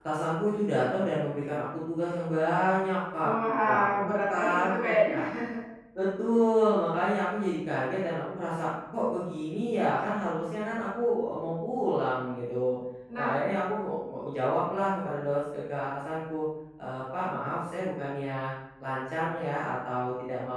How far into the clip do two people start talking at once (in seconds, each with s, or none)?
3.7 s